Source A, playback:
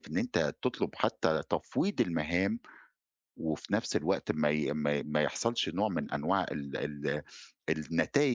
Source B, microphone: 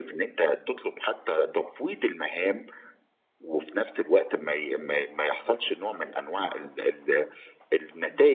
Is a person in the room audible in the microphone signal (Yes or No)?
No